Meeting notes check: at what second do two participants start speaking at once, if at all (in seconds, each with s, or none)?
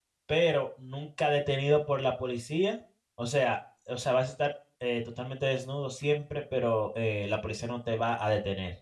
none